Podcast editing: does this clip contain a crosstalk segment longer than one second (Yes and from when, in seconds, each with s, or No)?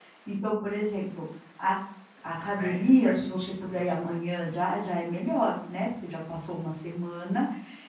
Yes, from 2.6 s